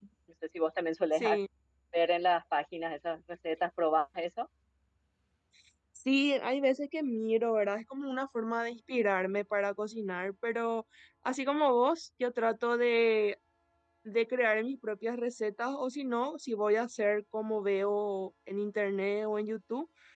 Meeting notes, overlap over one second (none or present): none